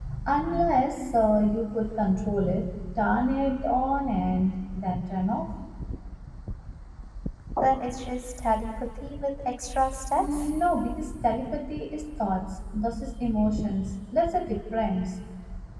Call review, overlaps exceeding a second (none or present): none